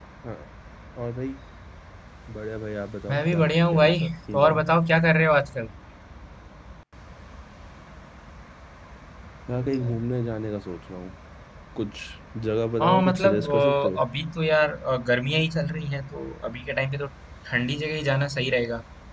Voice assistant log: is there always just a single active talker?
No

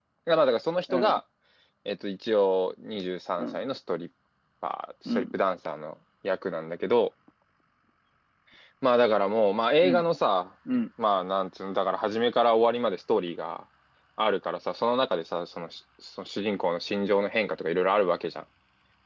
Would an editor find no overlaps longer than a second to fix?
Yes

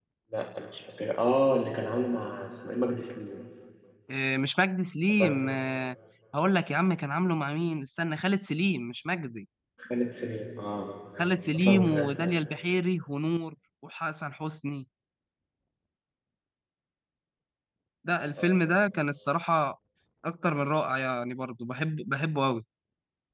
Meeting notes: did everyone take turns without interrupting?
No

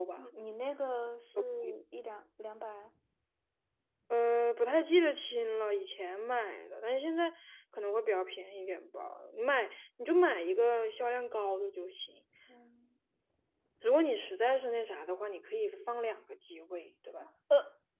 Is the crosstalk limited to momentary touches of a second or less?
Yes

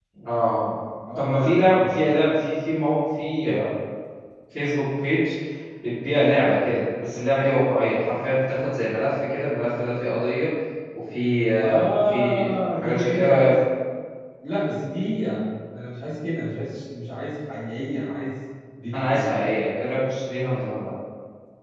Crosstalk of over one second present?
Yes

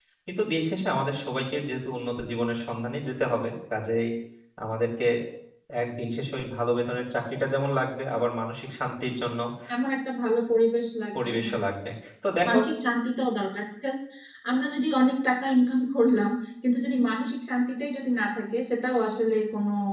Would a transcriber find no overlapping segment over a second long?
Yes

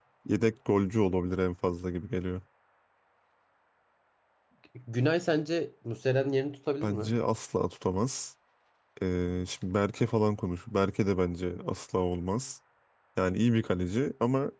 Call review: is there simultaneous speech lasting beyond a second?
No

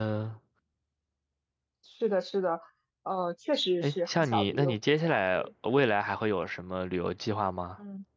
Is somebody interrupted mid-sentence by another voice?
Yes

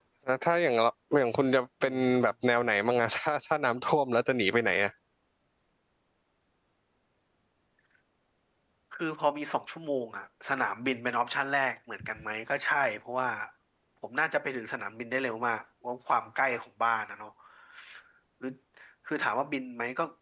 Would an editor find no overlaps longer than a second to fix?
Yes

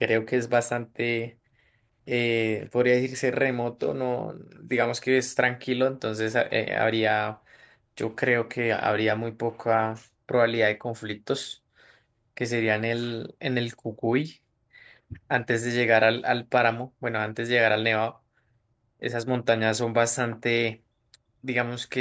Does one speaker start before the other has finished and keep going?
No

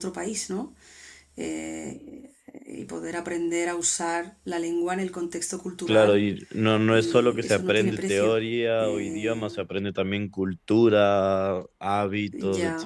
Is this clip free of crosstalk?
No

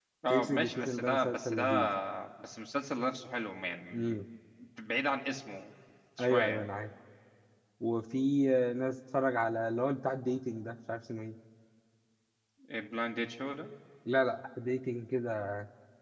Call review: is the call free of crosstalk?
No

